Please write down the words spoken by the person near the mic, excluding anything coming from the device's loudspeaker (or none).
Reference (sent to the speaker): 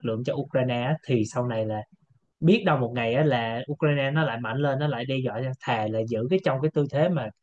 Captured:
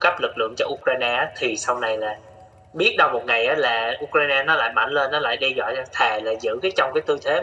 none